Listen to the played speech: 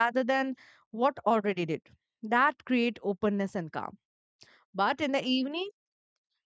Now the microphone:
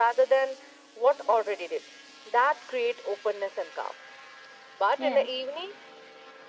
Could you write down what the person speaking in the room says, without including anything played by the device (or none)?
Yeah.